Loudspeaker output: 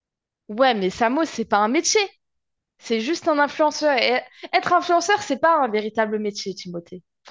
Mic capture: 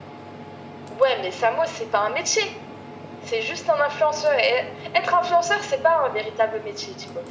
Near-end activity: none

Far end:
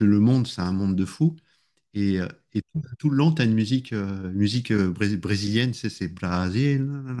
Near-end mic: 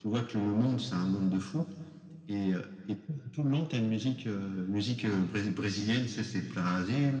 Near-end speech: none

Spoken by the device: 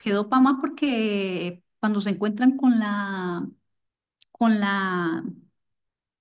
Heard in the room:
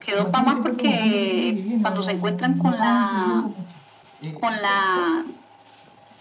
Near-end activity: present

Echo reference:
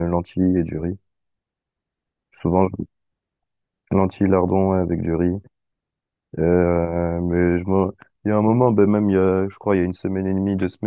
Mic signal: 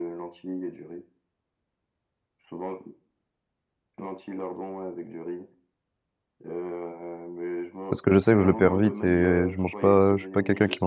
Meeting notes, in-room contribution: present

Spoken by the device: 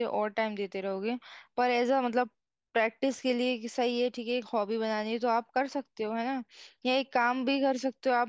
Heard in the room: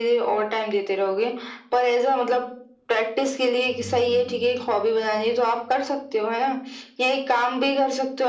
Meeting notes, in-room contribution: present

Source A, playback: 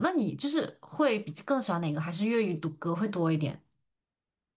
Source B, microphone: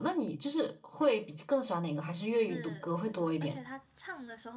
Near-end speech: present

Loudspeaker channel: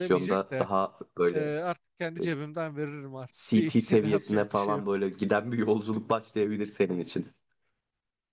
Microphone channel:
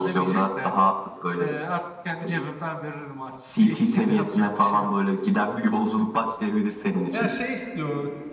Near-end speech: present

